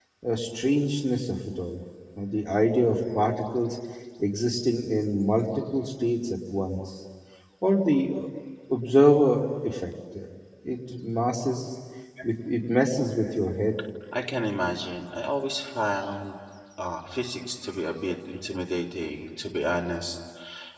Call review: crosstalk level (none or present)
none